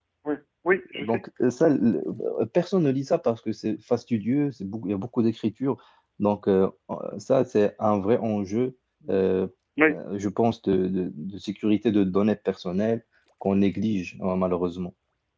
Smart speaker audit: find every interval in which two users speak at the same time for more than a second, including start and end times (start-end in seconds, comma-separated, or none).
none